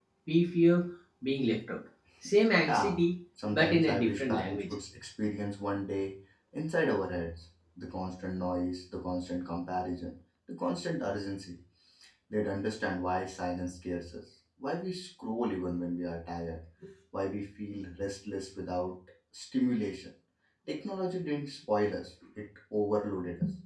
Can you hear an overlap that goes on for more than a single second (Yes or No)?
Yes